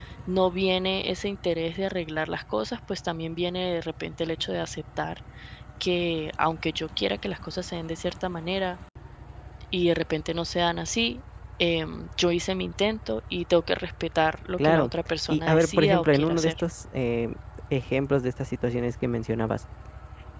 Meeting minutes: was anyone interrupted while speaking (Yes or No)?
Yes